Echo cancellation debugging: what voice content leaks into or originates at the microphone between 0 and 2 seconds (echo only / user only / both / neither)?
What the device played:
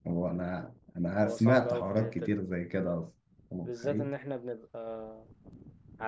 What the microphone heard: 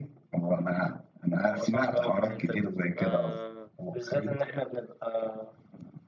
echo only